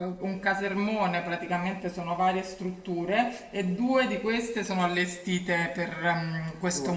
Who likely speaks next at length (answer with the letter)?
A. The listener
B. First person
B